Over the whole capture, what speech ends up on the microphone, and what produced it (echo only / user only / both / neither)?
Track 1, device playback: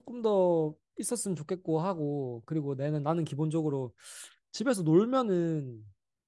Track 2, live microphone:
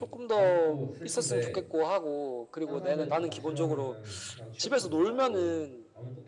both